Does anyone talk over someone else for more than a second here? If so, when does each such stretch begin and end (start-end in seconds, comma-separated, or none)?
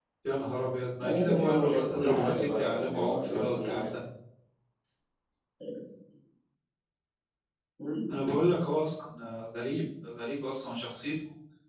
1.1-4.0